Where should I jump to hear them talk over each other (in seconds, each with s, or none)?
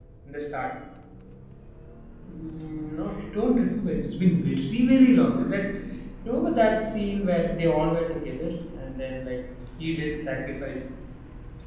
none